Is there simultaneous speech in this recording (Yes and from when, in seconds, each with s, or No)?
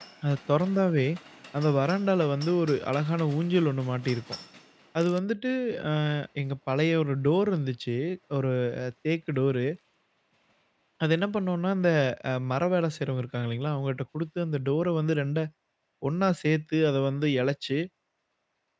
No